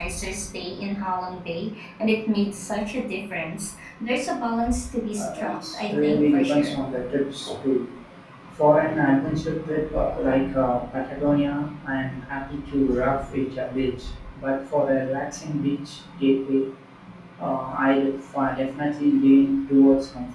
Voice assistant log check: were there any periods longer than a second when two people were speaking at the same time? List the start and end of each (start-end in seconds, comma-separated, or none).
5.2-6.8